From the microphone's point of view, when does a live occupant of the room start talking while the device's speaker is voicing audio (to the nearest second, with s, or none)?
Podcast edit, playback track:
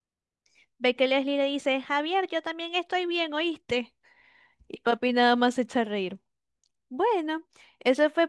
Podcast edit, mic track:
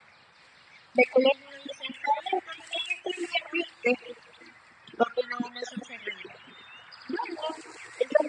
none